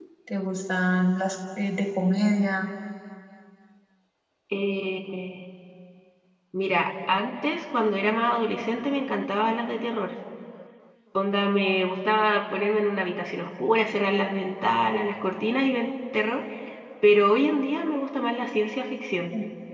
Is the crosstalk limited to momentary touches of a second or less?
Yes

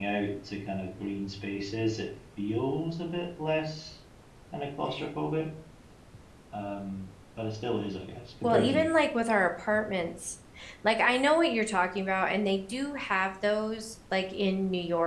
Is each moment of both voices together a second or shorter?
Yes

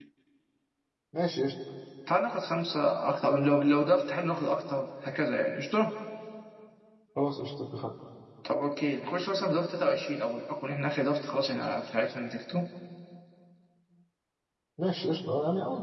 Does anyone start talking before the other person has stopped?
No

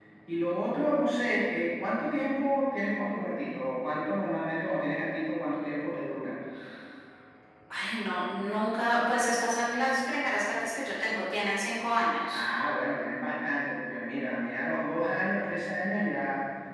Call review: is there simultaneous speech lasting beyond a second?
No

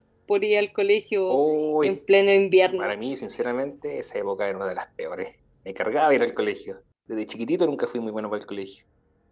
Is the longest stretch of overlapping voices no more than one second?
Yes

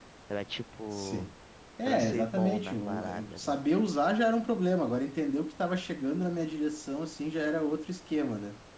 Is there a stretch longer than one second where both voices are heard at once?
Yes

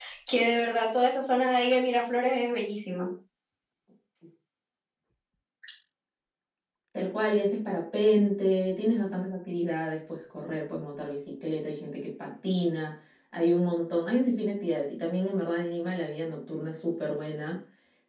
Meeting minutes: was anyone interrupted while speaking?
No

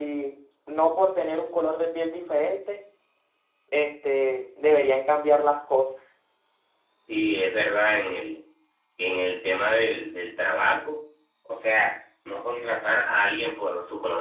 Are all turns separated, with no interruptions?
Yes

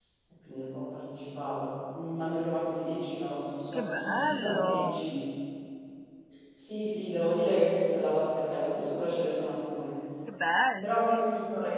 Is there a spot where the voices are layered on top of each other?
Yes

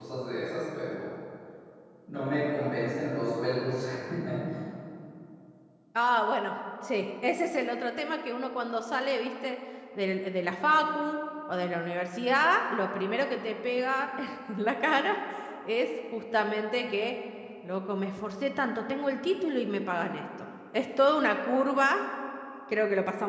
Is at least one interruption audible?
No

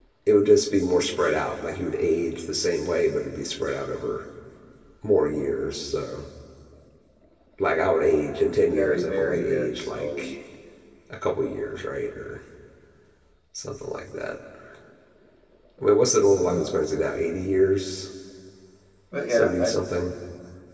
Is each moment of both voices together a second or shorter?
No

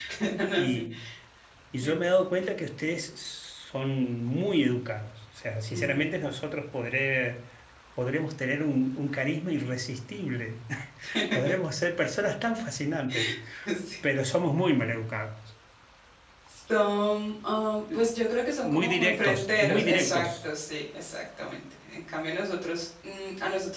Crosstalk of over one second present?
Yes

